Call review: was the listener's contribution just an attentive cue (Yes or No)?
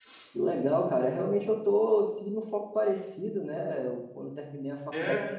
Yes